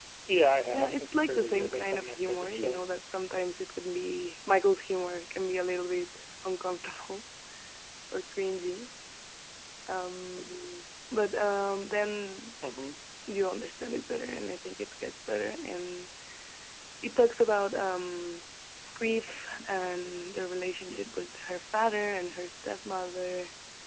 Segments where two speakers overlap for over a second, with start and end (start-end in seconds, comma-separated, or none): 0.7-2.9